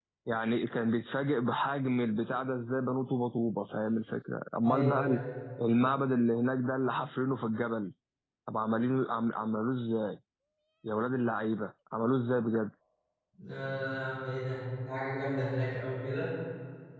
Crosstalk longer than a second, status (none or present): none